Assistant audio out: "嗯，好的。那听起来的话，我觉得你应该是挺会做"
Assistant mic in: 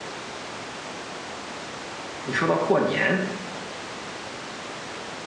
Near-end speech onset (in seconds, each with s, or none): 2.2 s